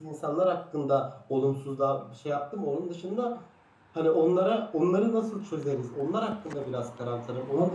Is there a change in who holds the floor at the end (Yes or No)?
No